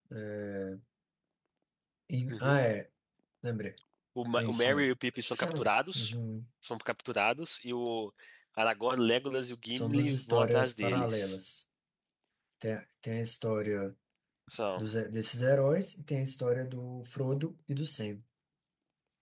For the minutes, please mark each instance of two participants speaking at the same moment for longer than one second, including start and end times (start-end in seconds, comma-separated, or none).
9.7-11.4